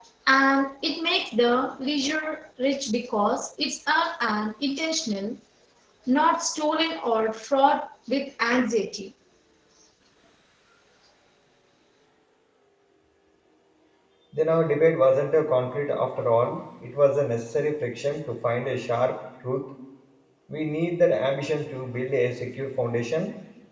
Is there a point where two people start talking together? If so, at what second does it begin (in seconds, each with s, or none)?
none